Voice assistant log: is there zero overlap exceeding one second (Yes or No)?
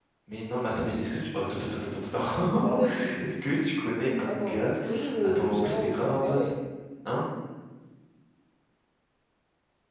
No